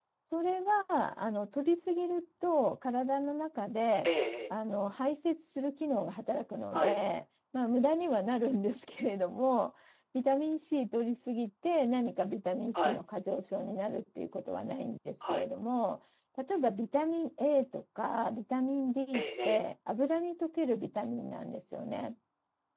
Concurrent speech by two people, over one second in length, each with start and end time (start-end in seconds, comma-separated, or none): none